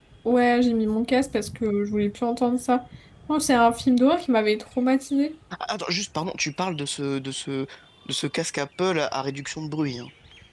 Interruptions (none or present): none